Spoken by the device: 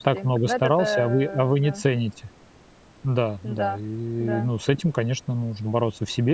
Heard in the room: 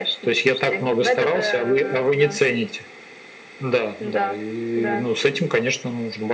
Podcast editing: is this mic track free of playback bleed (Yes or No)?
No